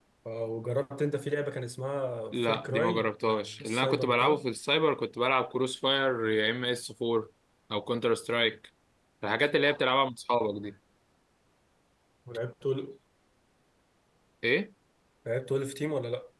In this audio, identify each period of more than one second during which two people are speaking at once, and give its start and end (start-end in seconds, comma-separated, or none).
2.3-4.4